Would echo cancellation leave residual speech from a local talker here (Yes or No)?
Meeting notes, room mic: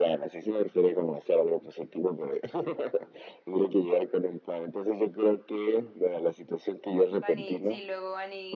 Yes